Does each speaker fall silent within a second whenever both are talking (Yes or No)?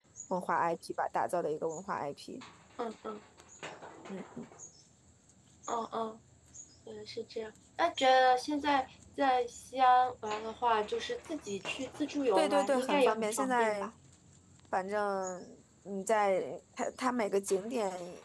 No